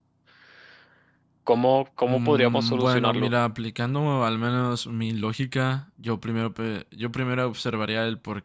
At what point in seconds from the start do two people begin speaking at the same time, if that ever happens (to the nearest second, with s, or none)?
2 s